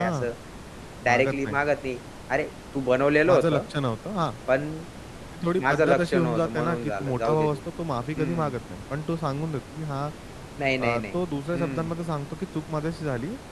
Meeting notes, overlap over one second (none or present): present